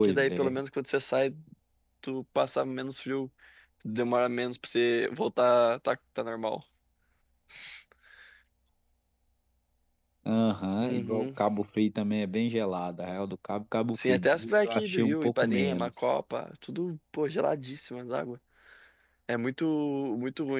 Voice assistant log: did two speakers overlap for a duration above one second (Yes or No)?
Yes